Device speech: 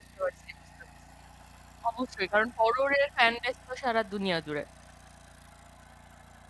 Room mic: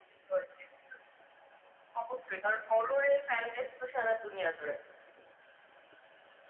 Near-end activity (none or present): none